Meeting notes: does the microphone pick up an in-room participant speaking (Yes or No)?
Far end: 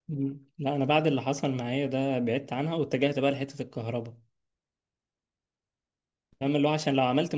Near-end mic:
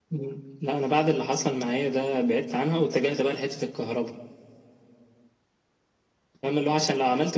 No